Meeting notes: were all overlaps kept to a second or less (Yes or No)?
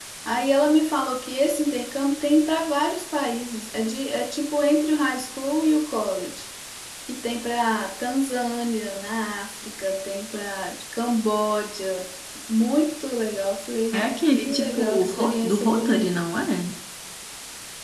No